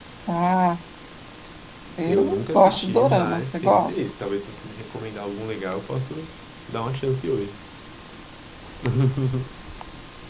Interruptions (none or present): present